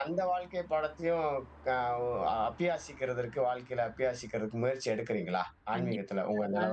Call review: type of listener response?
taking over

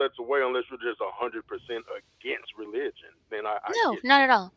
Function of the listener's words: taking over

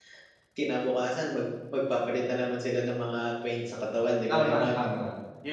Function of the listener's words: taking over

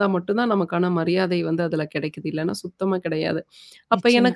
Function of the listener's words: listening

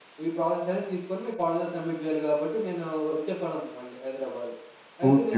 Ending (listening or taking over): taking over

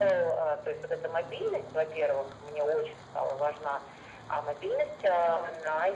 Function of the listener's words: listening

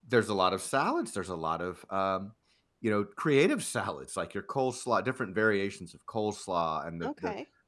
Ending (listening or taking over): listening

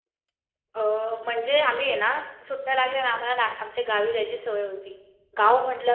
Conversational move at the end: listening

